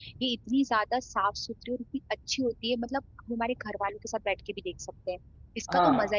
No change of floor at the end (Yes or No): No